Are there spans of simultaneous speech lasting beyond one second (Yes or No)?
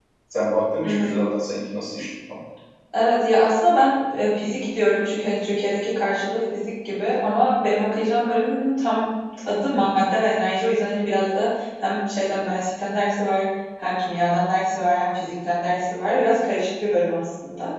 No